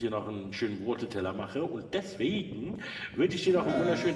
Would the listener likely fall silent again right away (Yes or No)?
Yes